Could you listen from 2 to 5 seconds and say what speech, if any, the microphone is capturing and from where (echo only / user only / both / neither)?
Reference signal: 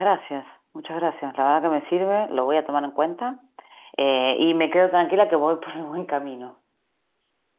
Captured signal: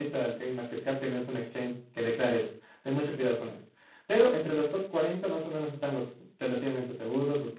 user only